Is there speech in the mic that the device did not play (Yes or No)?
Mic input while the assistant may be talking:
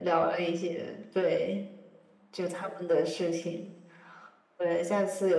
No